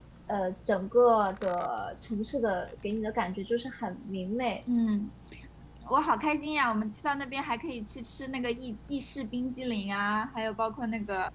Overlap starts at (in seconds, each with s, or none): none